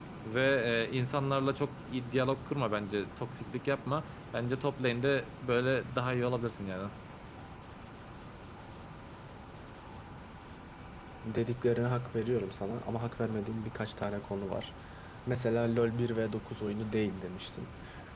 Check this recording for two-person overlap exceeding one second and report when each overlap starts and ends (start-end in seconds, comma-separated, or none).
none